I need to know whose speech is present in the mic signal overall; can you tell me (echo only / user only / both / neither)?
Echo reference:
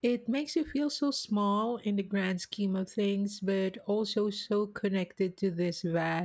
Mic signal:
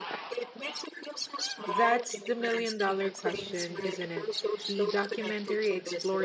both